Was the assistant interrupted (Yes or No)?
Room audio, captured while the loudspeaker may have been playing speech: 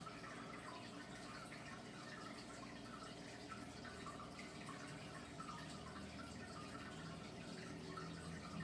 No